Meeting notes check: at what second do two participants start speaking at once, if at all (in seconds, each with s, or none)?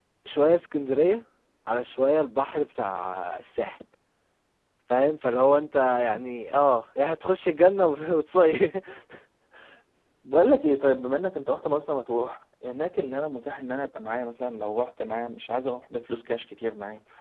none